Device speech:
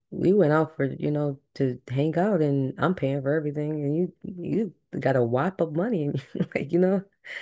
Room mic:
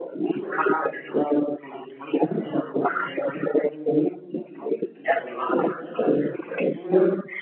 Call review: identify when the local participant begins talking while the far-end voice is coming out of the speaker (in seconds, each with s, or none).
none